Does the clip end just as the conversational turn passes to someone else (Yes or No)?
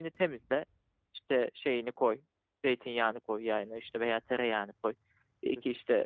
No